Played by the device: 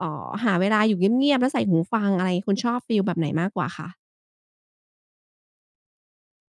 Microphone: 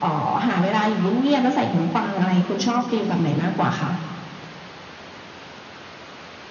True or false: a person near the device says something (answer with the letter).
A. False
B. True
A